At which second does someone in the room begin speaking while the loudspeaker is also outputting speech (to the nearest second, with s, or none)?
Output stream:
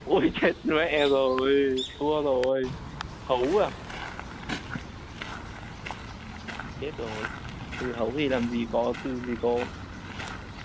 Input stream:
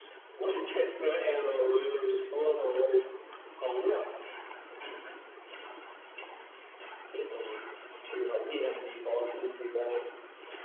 none